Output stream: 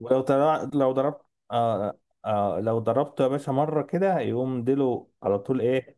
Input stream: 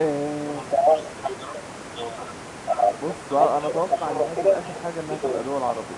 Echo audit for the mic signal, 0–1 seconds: both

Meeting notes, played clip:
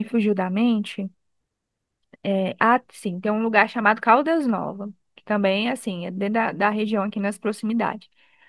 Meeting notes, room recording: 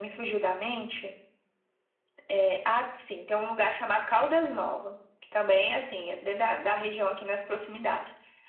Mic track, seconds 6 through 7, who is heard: echo only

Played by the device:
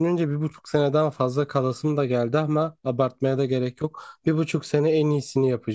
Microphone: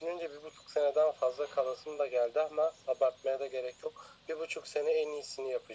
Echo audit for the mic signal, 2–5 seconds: echo only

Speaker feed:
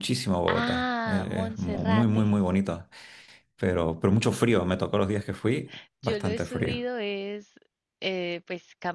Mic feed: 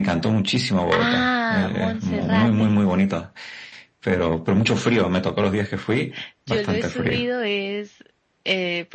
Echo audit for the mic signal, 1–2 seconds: echo only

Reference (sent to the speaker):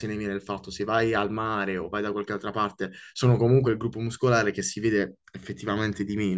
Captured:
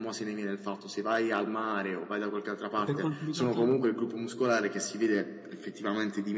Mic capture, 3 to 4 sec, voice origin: both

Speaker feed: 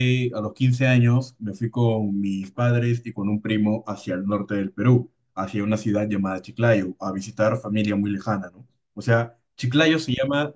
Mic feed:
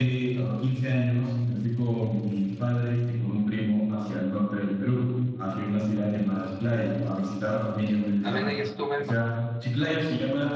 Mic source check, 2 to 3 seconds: echo only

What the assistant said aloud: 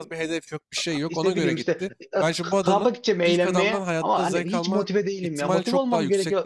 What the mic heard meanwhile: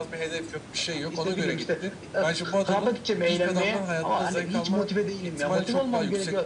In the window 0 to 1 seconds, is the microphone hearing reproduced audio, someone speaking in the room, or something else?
echo only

